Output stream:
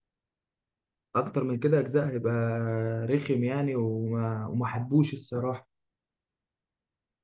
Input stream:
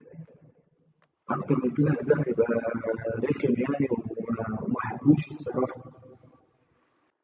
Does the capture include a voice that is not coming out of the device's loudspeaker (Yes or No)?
No